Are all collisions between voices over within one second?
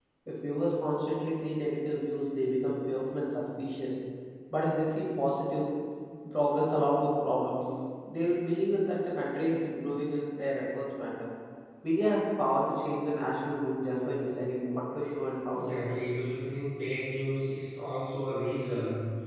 Yes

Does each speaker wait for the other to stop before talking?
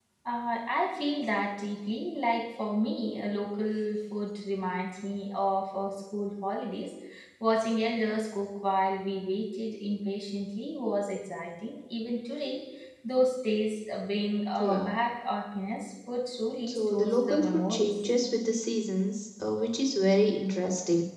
No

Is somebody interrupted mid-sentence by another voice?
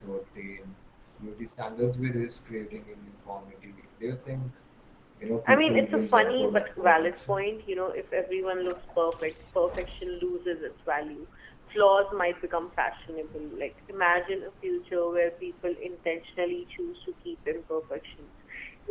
Yes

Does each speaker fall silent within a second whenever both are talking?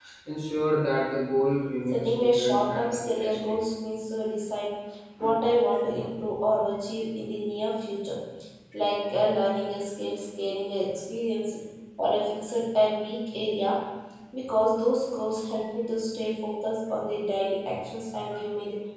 No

